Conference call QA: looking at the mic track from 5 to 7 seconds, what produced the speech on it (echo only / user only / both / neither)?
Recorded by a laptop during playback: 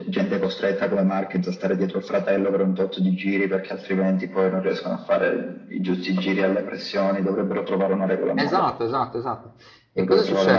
echo only